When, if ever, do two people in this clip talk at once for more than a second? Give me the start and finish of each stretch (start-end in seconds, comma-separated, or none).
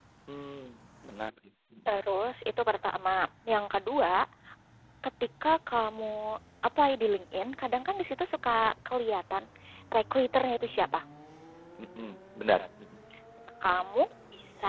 none